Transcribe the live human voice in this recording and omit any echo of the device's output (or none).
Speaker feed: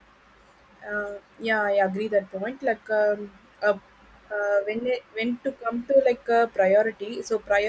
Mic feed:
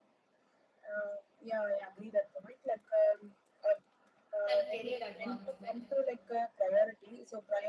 and career advancement.